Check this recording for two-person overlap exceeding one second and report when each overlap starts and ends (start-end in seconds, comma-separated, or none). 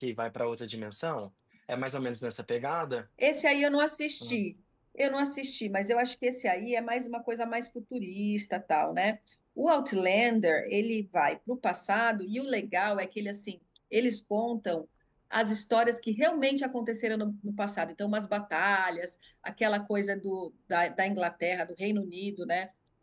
none